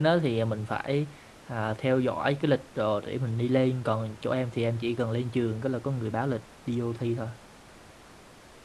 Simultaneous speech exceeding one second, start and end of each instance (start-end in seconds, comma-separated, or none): none